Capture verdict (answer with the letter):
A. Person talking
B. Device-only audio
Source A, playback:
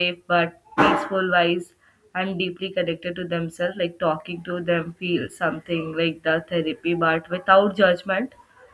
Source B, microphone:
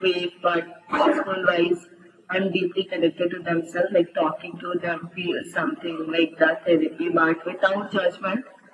B